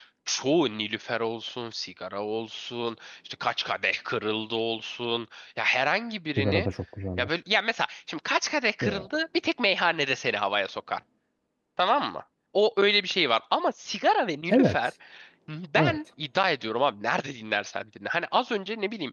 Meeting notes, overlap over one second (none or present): none